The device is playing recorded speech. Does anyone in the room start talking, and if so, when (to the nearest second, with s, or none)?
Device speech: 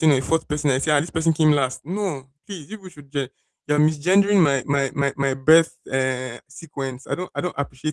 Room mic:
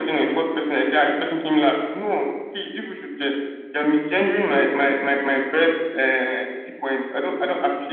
none